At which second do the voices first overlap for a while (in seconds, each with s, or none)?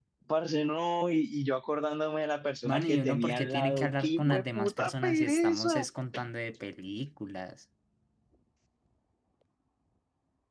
2.6 s